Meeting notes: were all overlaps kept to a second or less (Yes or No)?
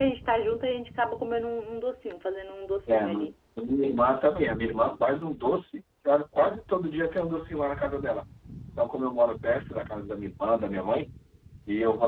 Yes